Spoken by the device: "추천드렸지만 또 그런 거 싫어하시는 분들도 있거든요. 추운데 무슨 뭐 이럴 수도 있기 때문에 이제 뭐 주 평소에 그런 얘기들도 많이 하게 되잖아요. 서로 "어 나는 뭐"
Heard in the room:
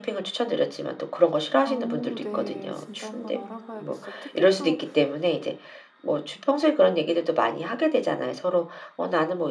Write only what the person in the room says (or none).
오, 네. 진짜 한번 알아봐야겠어요. 특히 또